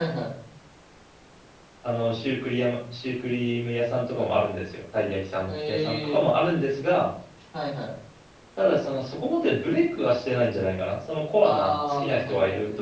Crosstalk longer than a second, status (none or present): present